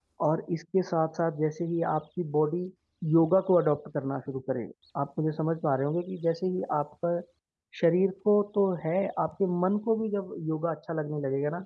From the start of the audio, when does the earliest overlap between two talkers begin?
none

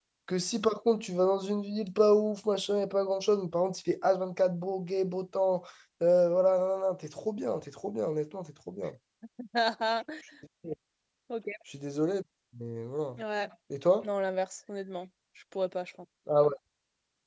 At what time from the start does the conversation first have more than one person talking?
none

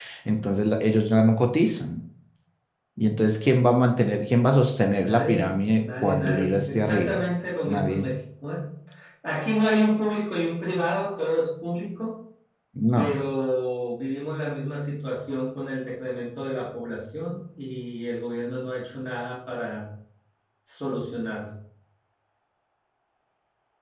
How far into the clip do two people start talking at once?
5.0 s

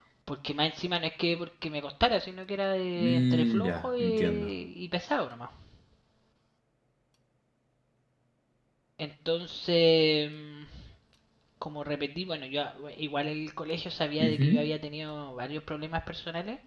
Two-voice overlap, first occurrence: 3.0 s

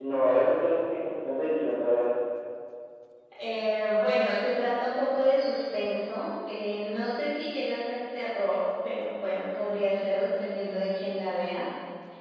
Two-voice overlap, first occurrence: none

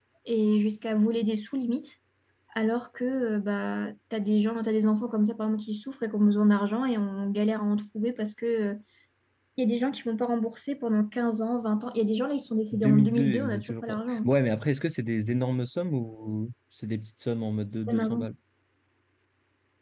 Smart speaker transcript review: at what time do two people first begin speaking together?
12.7 s

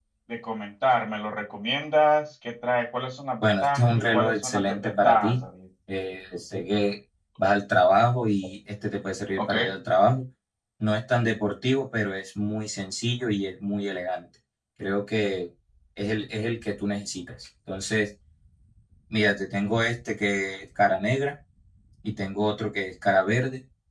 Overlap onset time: 3.4 s

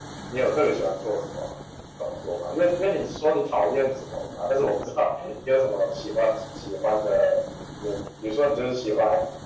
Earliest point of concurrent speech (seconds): none

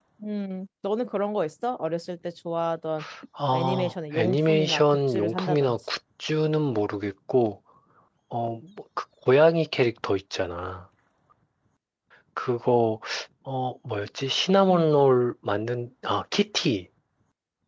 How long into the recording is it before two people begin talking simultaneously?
3.5 s

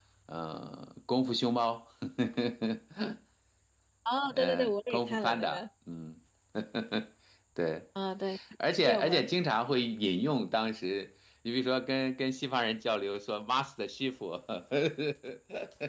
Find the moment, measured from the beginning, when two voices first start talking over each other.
4.3 s

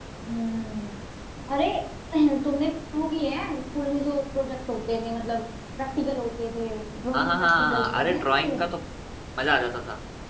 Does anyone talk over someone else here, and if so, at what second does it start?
7.1 s

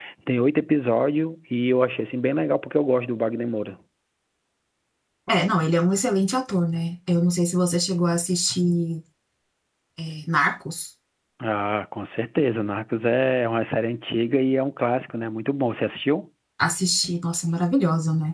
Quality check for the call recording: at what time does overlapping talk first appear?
none

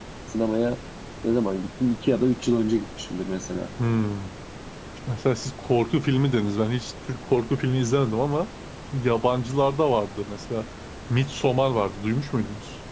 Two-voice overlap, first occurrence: none

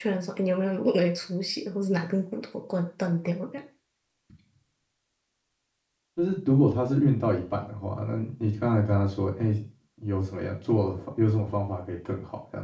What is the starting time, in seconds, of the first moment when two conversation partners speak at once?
none

